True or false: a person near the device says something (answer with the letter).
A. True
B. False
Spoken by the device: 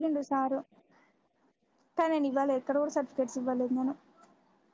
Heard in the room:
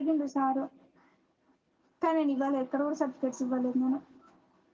B